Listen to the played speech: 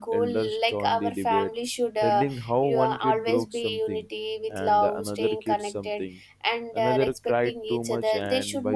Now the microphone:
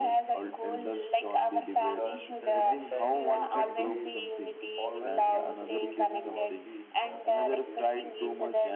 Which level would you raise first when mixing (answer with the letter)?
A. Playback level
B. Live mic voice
B